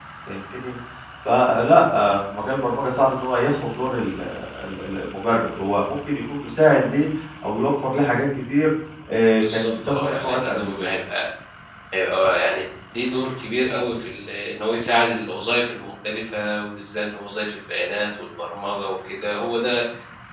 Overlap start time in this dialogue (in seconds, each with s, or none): 9.4 s